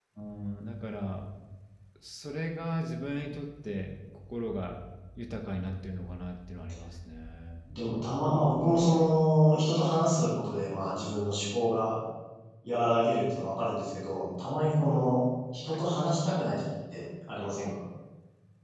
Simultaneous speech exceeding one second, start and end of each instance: none

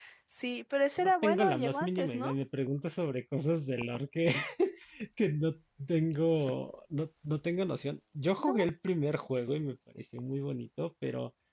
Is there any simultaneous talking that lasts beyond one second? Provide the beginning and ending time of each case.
1.0-2.3

